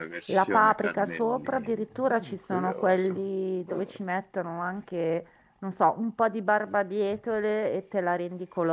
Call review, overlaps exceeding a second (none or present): present